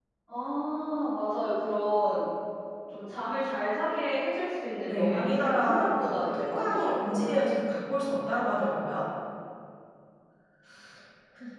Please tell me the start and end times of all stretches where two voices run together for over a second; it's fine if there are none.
4.9-7.5

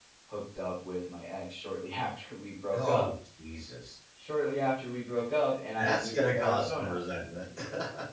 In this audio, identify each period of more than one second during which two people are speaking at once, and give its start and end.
5.8-7.0

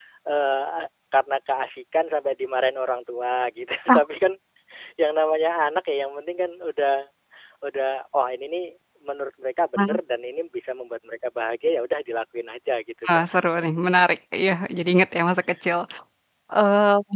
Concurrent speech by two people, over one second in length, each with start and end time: none

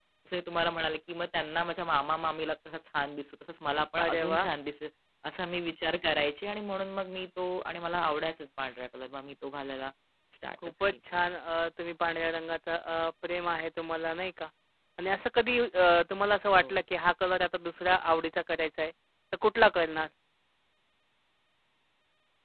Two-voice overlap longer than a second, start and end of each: none

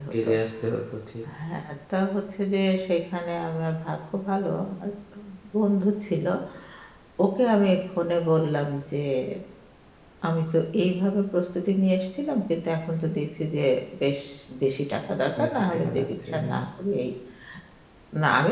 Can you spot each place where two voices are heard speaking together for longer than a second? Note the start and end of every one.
15.4-16.6

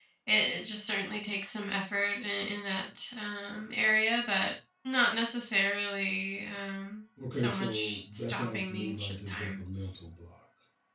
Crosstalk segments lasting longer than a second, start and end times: 7.3-9.6

